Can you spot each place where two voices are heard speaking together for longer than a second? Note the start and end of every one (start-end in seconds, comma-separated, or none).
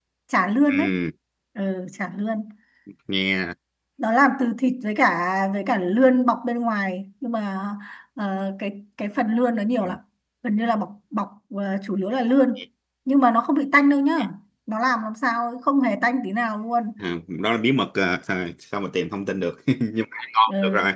none